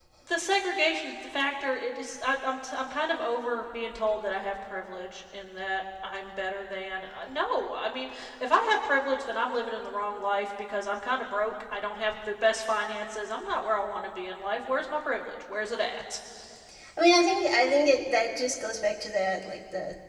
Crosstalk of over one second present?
No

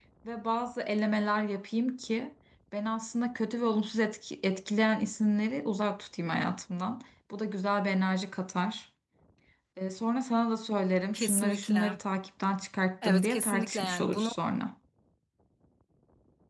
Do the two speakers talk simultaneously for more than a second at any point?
Yes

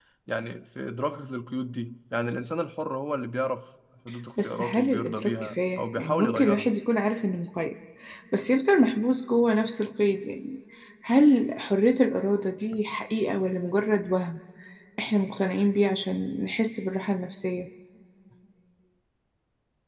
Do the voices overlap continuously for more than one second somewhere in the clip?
Yes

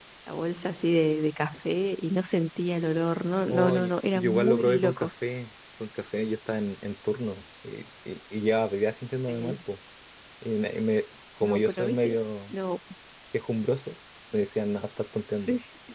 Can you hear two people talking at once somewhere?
Yes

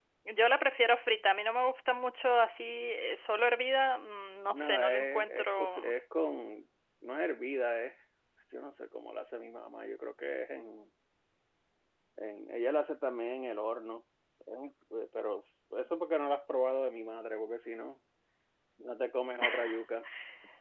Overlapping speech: Yes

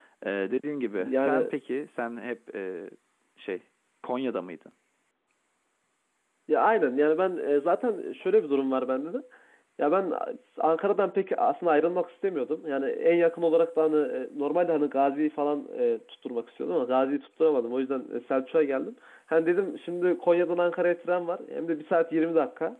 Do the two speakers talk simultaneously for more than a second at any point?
No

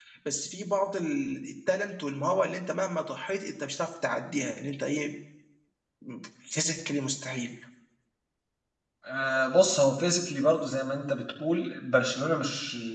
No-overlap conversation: Yes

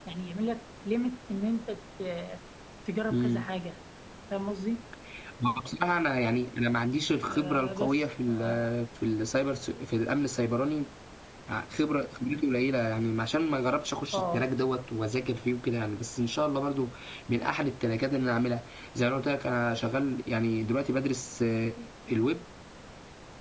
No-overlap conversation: No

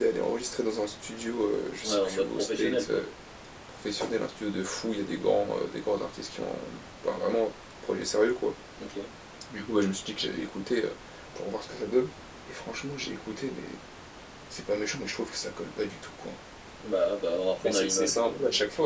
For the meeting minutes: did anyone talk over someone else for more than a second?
Yes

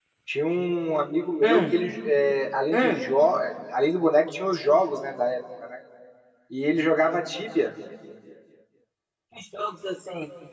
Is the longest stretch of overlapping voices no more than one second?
Yes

